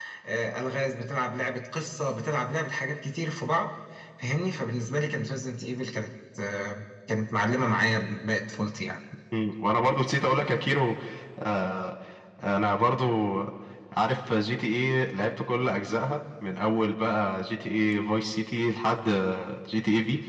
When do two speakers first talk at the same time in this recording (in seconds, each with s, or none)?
none